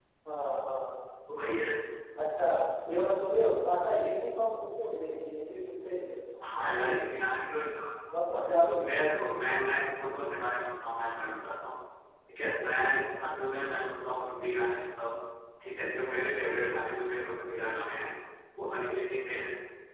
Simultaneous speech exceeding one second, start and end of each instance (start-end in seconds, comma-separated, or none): none